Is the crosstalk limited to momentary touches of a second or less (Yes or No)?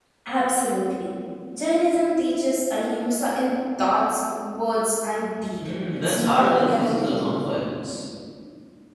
No